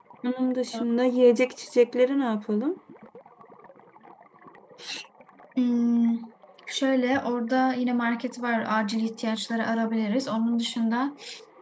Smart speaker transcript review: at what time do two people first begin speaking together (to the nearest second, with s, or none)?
none